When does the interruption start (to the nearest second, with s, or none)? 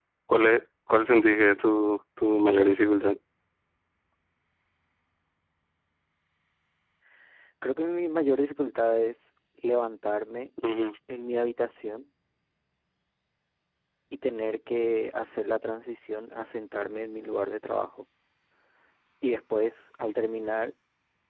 none